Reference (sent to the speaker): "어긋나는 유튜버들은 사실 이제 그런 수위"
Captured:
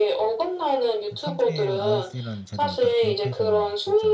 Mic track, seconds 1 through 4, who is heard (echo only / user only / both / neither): both